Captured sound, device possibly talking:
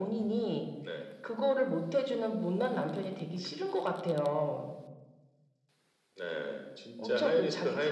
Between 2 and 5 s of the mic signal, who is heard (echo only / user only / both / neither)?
echo only